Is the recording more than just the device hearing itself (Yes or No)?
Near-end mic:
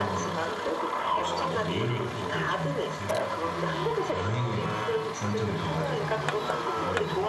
Yes